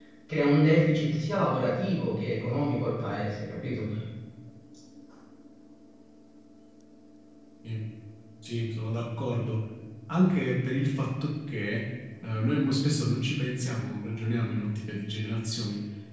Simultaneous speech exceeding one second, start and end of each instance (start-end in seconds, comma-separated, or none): none